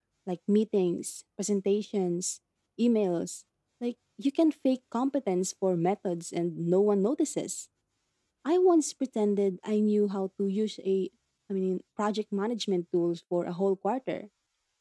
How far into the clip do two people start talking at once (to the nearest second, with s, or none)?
none